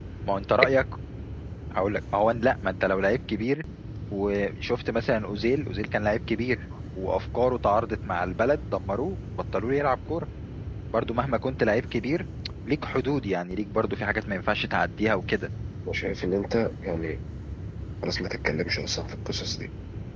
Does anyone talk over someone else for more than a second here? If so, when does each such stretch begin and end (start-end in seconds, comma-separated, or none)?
none